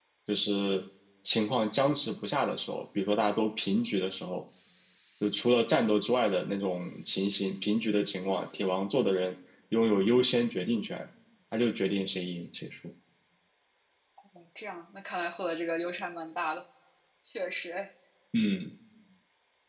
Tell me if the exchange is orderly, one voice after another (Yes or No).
Yes